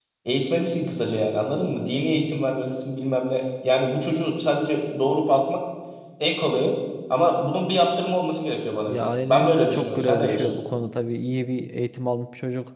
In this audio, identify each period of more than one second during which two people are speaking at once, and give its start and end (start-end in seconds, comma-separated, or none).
8.9-10.6